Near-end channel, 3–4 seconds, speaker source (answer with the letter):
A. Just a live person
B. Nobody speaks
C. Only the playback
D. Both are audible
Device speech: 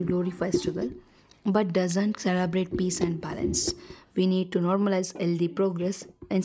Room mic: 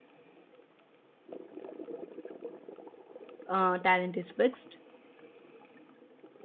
A